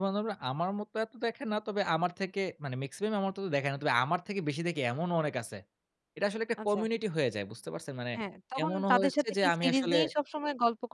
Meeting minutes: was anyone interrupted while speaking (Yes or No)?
Yes